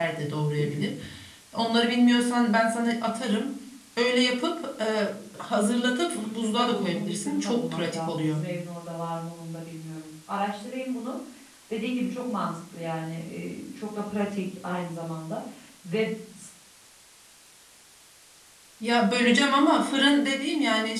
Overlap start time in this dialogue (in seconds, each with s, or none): 6.1 s